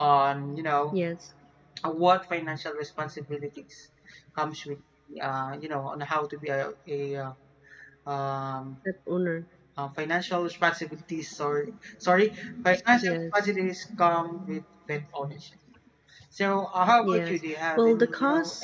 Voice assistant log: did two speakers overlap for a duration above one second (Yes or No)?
Yes